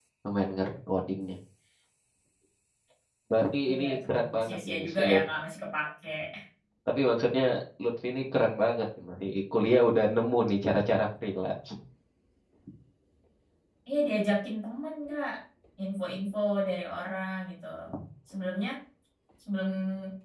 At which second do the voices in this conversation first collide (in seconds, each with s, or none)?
3.7 s